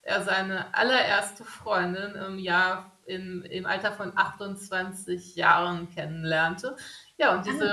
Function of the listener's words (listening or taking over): listening